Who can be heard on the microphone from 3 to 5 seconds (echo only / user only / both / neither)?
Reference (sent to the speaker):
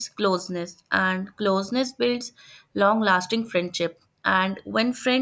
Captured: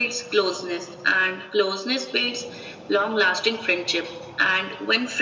echo only